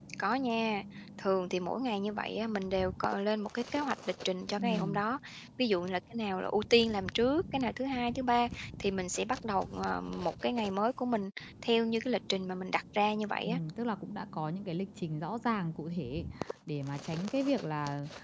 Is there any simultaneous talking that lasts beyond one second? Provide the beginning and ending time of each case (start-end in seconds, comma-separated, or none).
none